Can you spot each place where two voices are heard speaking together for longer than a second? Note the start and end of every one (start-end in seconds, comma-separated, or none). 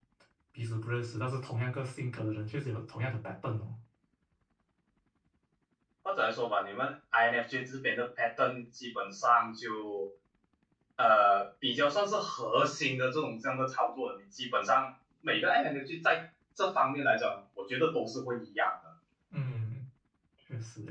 none